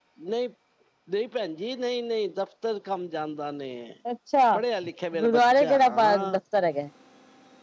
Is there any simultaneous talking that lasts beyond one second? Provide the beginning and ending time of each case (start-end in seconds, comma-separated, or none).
5.2-6.4